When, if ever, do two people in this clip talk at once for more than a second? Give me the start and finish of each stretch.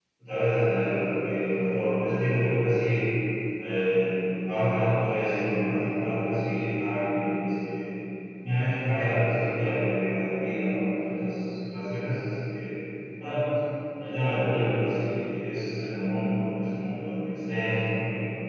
none

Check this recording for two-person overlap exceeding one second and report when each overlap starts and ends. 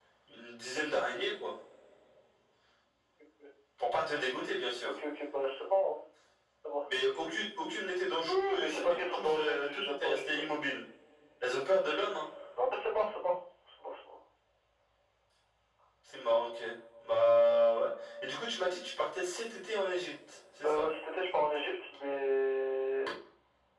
8.3-10.6

